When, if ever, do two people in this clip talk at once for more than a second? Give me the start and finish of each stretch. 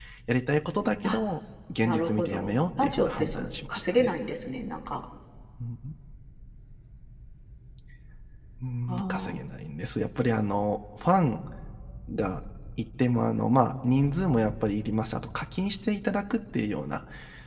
1.8-4.1

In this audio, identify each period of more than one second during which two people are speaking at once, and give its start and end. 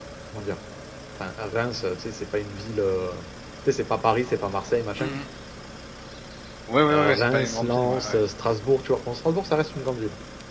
6.9-8.2

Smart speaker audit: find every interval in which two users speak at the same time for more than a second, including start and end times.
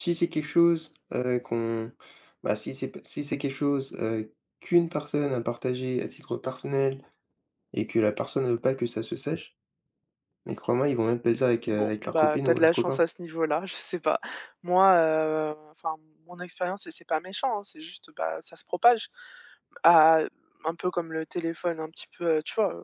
11.7-13.0

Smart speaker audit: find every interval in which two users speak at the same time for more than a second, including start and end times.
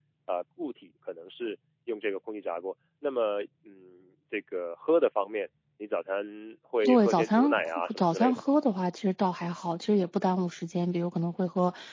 6.8-8.4

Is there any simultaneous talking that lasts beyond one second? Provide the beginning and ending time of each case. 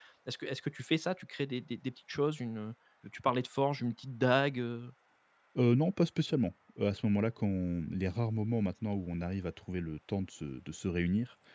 none

